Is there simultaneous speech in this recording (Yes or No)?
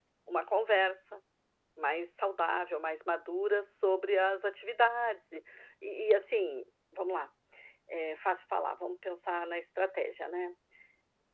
No